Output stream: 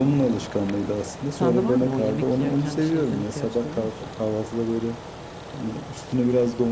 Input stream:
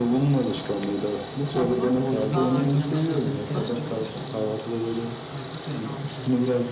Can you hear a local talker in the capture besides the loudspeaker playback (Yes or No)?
Yes